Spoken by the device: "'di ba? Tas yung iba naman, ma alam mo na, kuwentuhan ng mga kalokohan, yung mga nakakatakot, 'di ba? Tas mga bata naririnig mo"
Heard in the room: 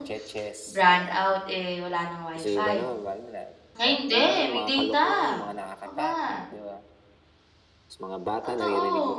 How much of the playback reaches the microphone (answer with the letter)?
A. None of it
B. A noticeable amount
B